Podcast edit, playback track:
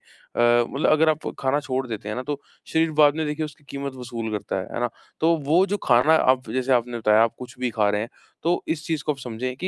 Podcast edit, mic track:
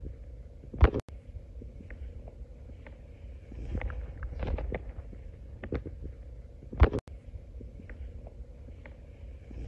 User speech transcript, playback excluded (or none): none